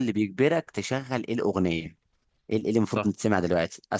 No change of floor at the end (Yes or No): Yes